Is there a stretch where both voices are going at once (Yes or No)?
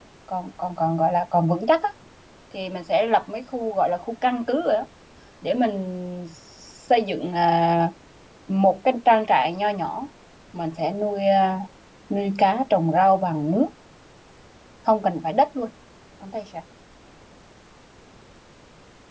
No